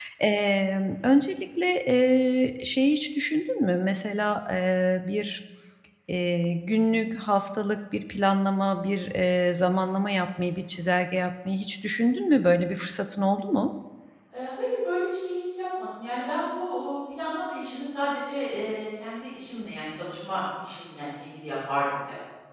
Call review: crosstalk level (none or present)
none